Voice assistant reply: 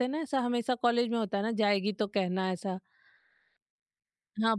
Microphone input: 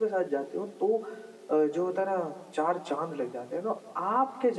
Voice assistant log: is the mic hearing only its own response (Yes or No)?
No